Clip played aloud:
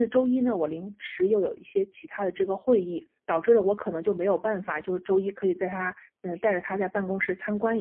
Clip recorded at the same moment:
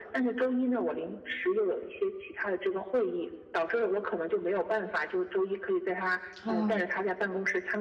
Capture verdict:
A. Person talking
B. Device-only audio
A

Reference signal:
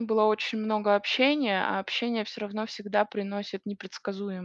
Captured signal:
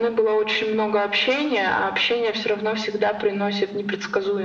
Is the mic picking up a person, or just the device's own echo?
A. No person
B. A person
A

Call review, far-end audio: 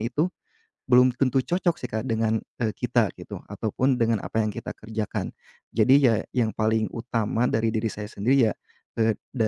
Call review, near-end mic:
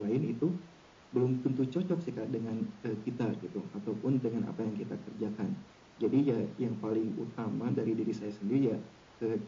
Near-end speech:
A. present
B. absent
B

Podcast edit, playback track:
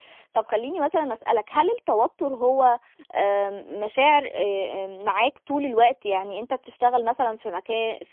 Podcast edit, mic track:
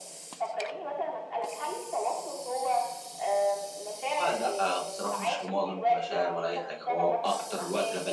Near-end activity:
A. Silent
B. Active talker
B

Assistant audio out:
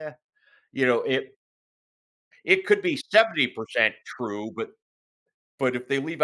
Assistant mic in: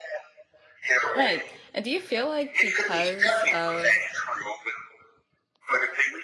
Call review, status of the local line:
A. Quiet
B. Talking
B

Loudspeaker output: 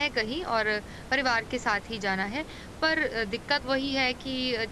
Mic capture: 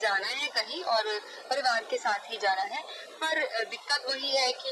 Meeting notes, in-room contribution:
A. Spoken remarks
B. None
B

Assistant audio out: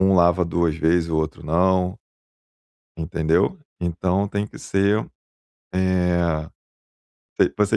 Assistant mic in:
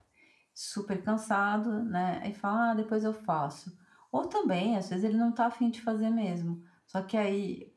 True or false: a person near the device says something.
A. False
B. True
B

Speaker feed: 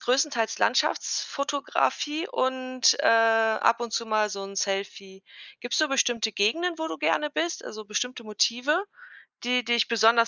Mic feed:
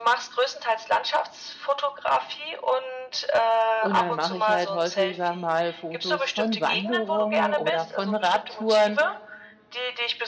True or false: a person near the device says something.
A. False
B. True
B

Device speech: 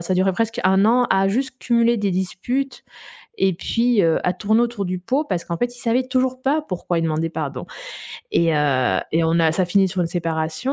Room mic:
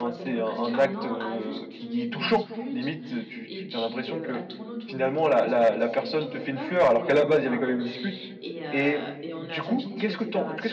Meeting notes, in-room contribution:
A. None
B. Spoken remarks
B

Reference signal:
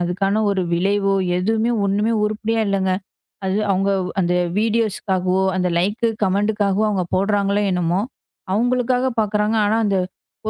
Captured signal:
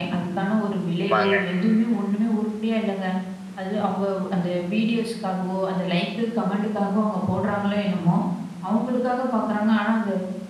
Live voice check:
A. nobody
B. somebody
B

